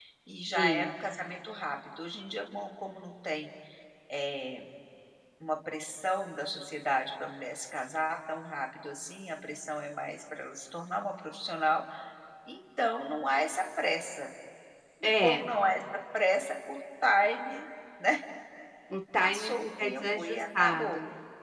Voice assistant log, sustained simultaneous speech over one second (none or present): present